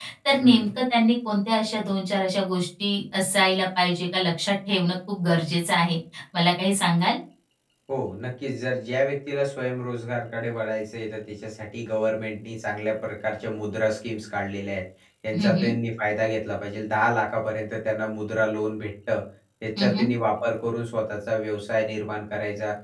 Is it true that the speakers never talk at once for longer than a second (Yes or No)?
Yes